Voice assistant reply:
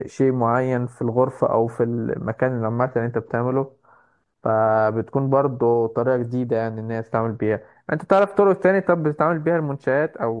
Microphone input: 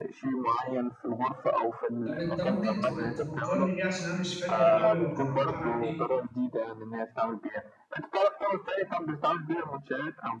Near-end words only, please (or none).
طب انت ممكن تق- تفكرني بيه عشان انا مش فاكر قوي هو كان عباره عن ايه